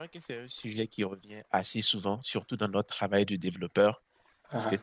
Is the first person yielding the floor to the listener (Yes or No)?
No